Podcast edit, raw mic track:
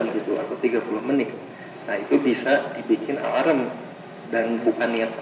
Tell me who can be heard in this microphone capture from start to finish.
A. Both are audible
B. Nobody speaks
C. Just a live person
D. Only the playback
D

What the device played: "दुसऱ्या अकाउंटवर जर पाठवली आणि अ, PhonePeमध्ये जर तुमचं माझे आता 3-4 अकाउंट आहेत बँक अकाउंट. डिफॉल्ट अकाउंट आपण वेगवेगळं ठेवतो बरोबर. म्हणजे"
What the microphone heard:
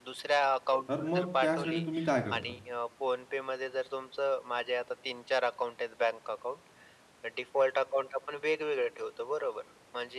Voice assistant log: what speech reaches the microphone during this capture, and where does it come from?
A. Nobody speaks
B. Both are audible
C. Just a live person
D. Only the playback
B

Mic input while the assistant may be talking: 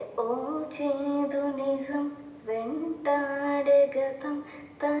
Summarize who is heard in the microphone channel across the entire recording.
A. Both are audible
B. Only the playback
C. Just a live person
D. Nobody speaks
B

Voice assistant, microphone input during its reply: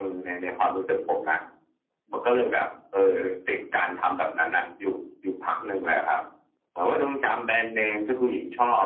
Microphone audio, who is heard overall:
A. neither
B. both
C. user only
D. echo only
D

